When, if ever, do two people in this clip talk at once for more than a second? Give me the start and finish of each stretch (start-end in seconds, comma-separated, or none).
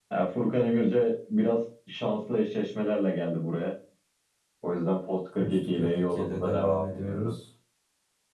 5.4-7.3